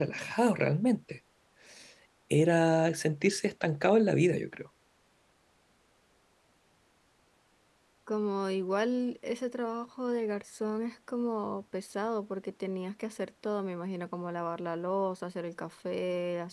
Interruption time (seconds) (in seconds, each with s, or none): none